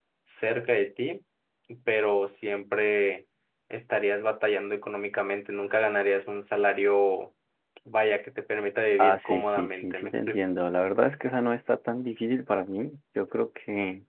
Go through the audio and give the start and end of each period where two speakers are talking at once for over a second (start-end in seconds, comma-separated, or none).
9.0-10.4